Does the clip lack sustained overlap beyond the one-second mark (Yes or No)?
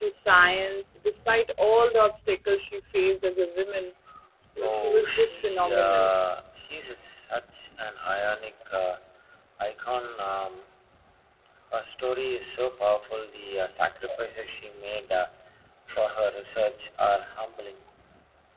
No